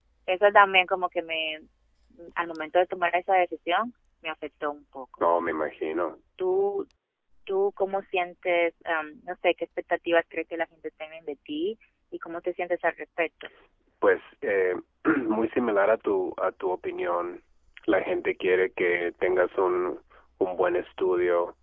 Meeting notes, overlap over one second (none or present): none